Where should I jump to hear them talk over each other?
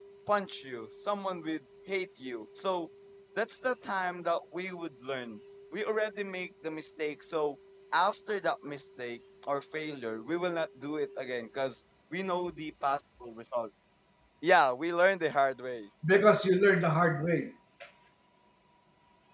none

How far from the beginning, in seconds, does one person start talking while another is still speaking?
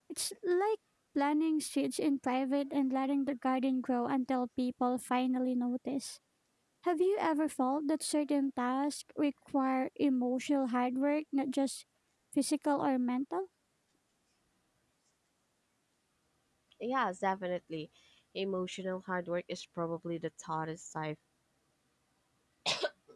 none

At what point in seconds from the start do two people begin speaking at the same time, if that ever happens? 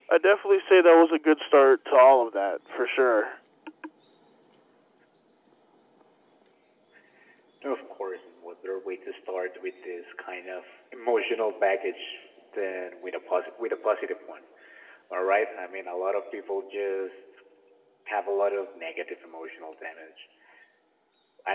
none

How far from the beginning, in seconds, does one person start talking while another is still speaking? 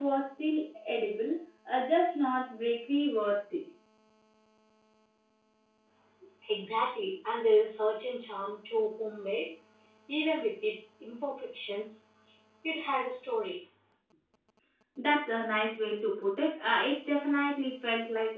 none

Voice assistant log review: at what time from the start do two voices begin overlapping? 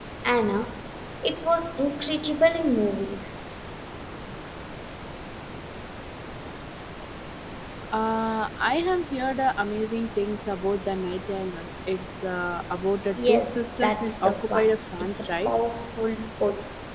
13.2 s

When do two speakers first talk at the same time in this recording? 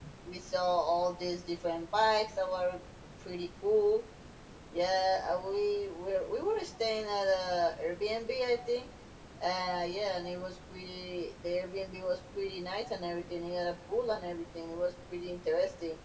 none

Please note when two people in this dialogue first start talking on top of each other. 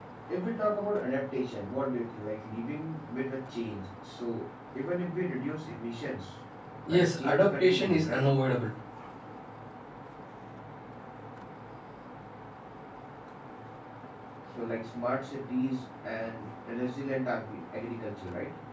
6.9 s

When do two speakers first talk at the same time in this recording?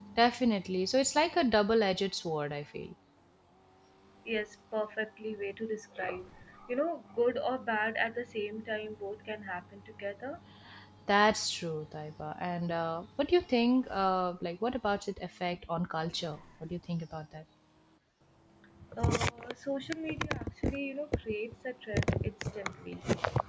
none

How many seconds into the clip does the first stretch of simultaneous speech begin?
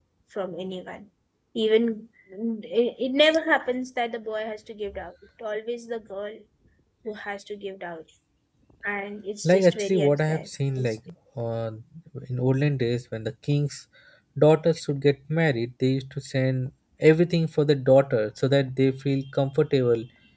9.4 s

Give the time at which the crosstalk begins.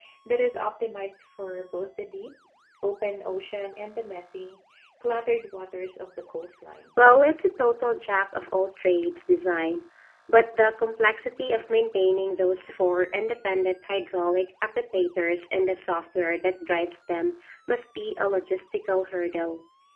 none

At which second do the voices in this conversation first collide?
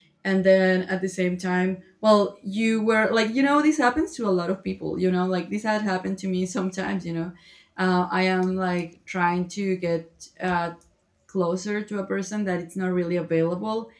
none

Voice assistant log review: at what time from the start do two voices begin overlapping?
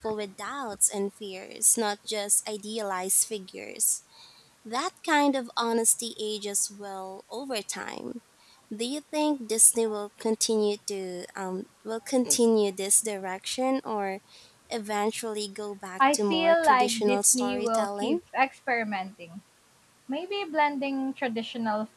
16.0 s

